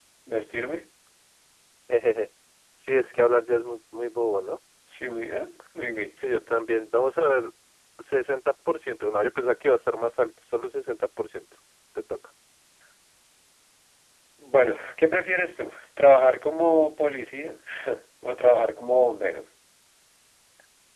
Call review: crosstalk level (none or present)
none